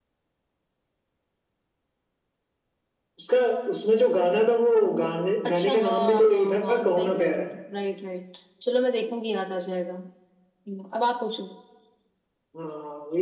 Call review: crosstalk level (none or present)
present